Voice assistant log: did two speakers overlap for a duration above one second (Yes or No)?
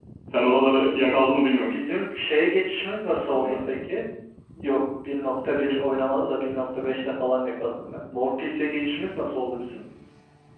No